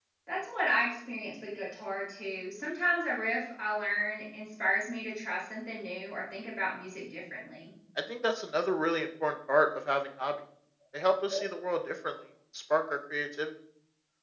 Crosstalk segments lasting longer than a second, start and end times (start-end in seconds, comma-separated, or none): none